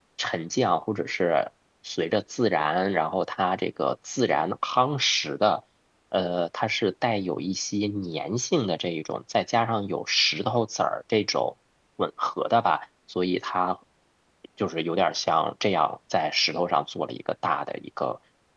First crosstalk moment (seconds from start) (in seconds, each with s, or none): none